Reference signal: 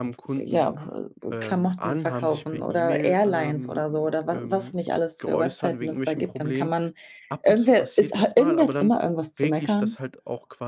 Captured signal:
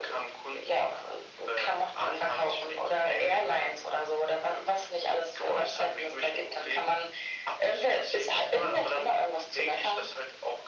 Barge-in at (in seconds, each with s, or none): none